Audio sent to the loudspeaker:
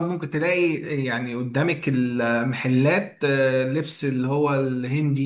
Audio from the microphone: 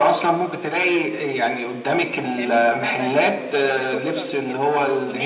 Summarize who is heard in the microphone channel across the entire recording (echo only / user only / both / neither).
both